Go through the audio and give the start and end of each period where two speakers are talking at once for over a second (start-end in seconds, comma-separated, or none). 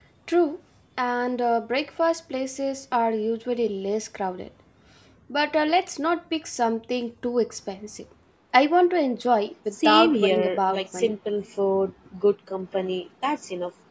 9.7-11.1